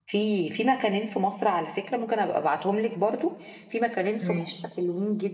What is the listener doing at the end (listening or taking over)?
listening